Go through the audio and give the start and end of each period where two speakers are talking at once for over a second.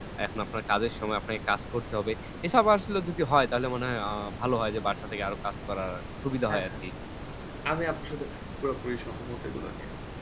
none

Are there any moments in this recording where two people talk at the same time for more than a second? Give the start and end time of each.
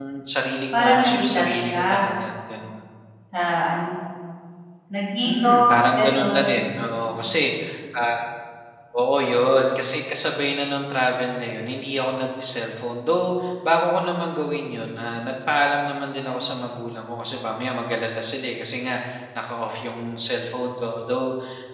0.7-2.1, 5.2-7.2

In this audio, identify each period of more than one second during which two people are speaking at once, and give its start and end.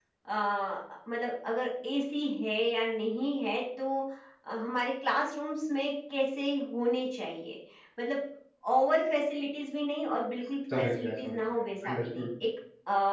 10.8-12.3

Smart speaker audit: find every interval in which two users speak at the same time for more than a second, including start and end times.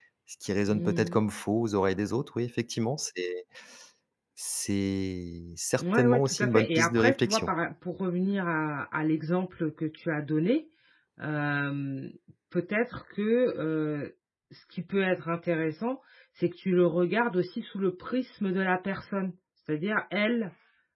5.8-7.5

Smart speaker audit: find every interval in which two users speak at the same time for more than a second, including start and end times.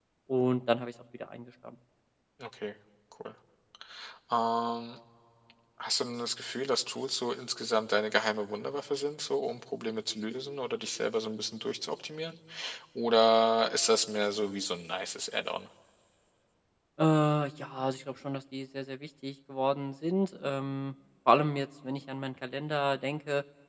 none

